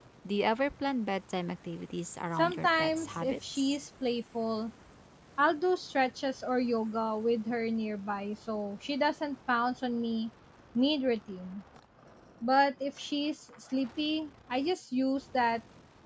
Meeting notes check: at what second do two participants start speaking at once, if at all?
2.4 s

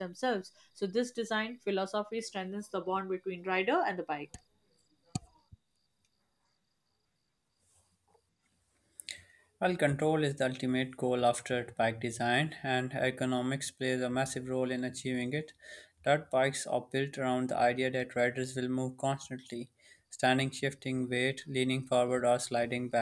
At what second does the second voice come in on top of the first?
none

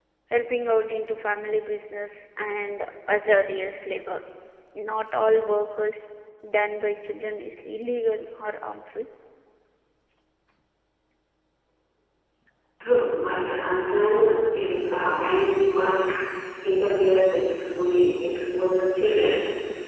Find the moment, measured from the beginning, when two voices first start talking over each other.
none

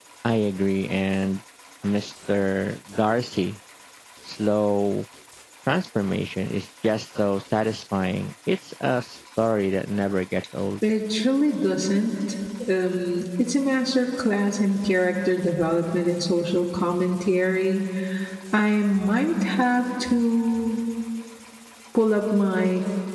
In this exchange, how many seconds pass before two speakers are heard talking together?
none

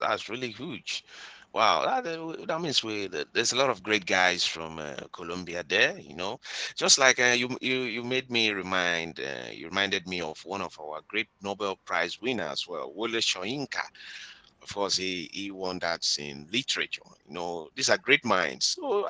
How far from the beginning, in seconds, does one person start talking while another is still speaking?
none

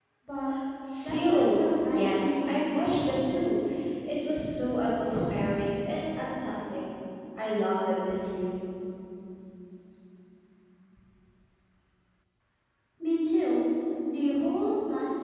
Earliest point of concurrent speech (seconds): 1.0 s

